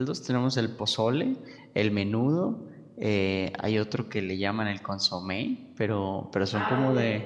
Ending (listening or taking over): taking over